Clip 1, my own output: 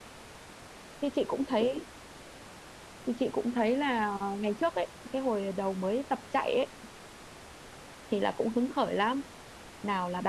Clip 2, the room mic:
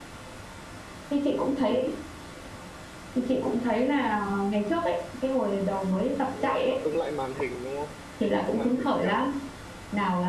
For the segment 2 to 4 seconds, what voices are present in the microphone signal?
echo only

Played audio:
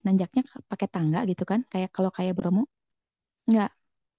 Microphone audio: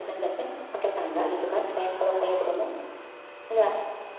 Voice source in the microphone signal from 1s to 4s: echo only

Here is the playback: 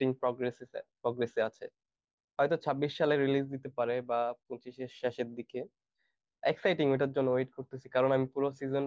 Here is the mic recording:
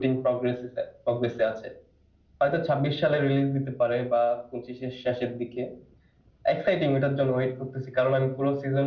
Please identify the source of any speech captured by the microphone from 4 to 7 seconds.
echo only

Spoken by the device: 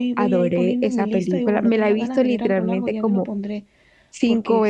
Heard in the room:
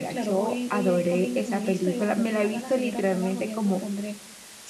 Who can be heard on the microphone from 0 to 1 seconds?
echo only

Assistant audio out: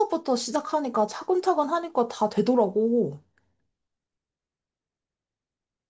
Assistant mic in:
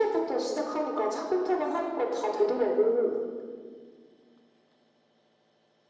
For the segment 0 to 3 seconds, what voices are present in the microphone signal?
echo only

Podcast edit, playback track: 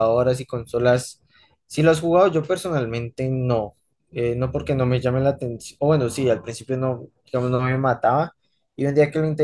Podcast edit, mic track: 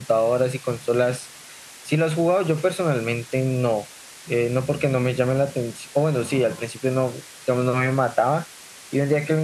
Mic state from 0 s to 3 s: echo only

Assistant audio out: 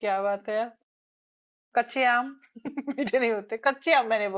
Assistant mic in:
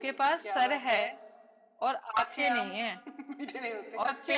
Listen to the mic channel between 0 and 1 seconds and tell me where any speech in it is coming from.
both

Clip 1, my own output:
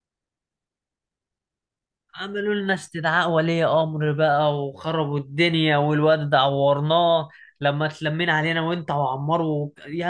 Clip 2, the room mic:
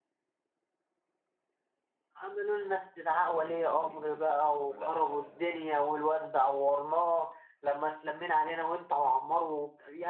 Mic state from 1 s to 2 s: neither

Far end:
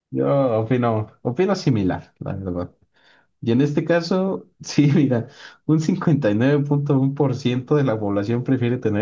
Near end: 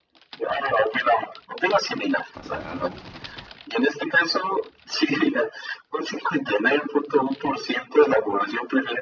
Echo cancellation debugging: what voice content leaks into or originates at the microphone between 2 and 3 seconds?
both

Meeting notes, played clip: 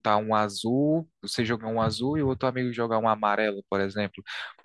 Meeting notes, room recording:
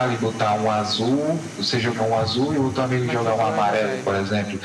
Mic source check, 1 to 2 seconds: echo only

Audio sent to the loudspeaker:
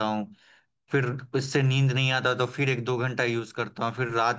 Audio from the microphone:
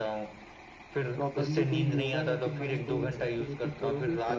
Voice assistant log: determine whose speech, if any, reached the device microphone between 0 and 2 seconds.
both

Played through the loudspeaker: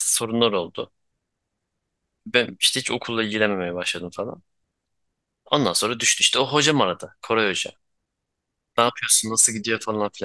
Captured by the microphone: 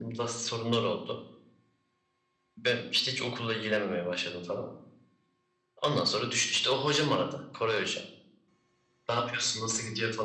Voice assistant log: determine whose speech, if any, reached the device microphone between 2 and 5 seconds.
echo only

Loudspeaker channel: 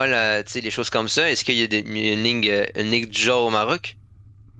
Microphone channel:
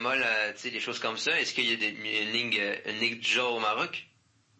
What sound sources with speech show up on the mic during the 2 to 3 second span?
echo only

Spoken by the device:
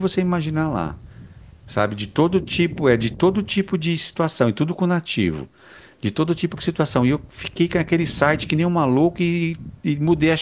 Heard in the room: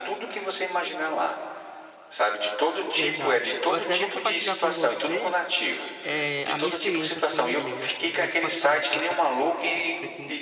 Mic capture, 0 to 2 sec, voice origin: echo only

